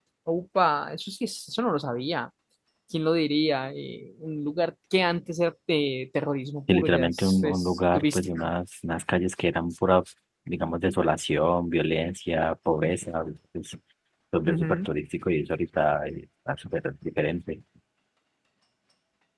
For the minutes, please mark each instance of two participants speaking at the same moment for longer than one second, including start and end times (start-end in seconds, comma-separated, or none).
6.7-8.5